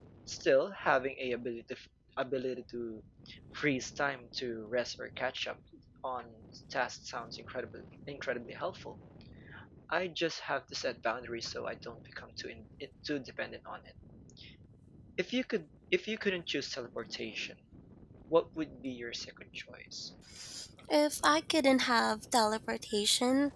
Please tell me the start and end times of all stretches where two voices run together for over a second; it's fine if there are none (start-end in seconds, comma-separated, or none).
none